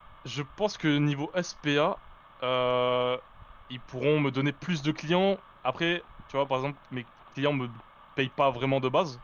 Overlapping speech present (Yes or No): No